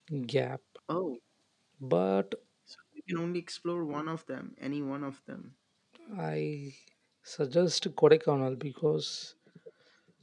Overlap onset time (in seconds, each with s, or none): none